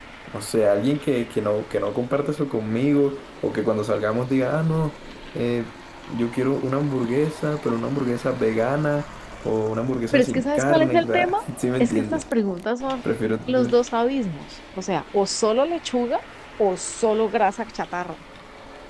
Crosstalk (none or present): present